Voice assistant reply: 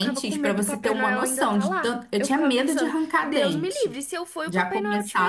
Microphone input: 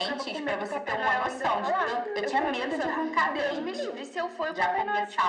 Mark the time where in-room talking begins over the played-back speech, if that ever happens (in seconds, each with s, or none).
1.6 s